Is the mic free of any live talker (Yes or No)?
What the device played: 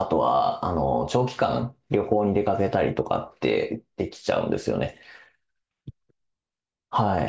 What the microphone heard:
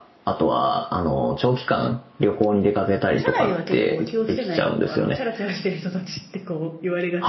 No